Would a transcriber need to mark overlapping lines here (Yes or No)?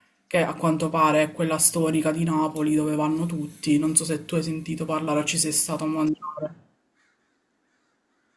No